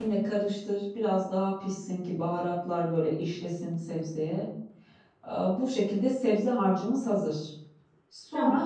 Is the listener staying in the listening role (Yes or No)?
Yes